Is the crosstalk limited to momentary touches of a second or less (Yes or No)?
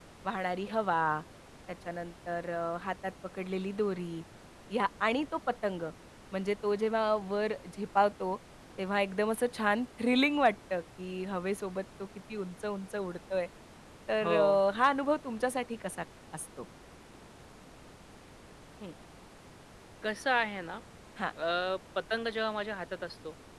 Yes